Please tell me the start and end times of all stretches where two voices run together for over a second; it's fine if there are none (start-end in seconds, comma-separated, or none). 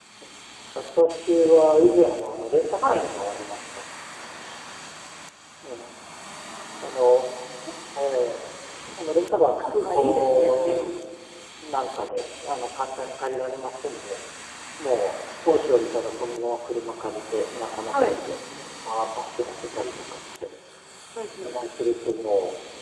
9.6-10.8